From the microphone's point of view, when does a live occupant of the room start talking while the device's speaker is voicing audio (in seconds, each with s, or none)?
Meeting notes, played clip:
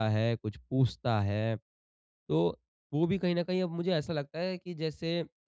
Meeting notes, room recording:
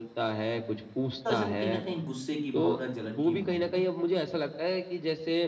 1.2 s